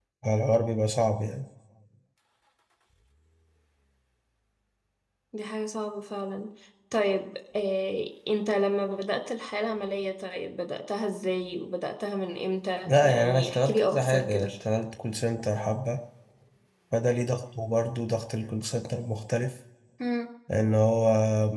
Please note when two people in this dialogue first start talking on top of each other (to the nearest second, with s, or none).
13 s